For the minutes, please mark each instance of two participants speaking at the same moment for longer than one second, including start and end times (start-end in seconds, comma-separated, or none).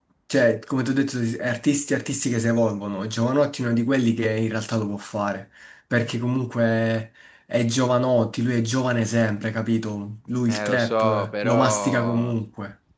10.5-12.3